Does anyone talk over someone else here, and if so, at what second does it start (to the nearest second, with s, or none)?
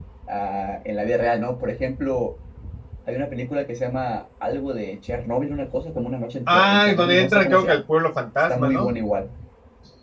6 s